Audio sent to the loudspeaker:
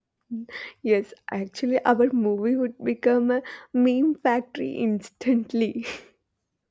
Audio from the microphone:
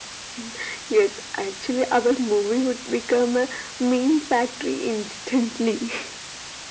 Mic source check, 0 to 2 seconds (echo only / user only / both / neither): echo only